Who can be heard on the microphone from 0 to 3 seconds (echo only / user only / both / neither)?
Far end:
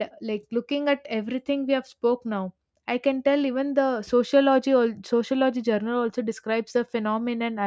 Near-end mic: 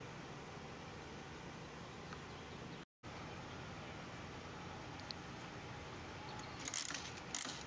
neither